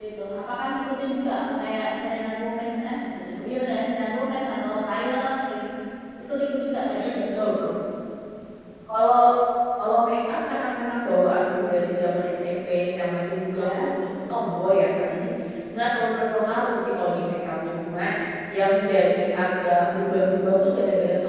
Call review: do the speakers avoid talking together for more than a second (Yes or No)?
Yes